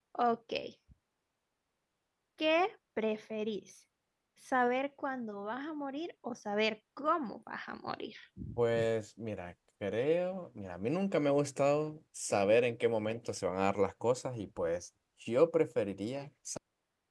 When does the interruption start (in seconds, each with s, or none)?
none